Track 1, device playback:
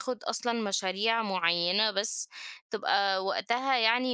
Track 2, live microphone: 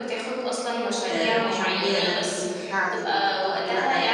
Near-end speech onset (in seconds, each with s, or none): 1.1 s